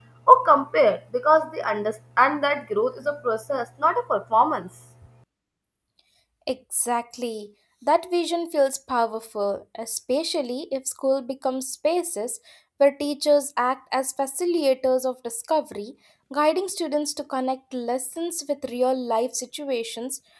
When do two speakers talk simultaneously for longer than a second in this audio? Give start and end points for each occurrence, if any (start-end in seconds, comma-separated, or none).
none